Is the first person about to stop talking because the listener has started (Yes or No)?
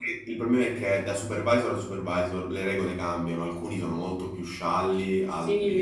Yes